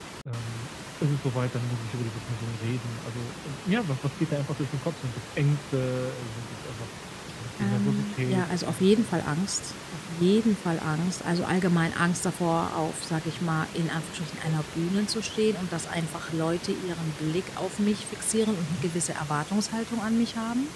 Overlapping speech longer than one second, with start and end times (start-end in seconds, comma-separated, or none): 7.6-9.3